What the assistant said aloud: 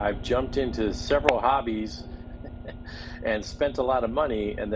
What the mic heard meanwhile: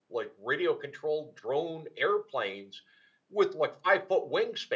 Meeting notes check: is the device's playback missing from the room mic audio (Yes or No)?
Yes